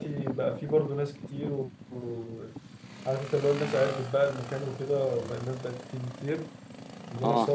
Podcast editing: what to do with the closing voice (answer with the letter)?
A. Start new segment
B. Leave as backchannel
B